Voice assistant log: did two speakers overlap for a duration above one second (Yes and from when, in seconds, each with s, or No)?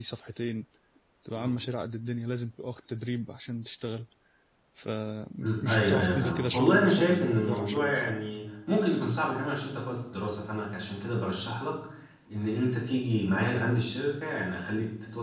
Yes, from 5.4 s